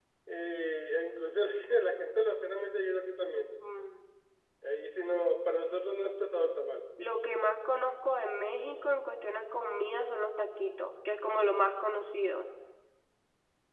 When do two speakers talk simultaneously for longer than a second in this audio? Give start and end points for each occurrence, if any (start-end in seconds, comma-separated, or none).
none